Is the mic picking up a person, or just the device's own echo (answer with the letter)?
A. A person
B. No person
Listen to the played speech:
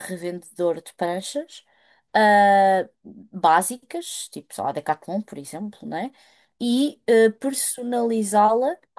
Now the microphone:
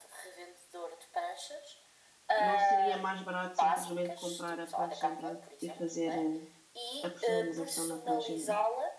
A